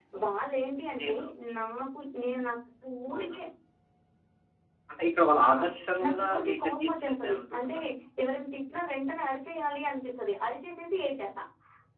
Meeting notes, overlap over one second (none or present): present